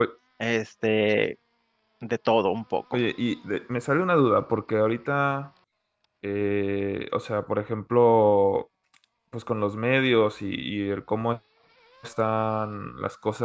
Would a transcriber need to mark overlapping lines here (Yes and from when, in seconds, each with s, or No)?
No